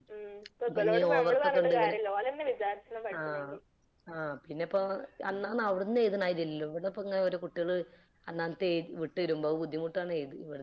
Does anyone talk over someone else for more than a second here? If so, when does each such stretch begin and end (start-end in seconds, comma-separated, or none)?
0.7-1.9